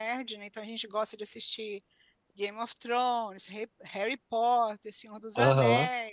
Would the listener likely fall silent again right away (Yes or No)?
Yes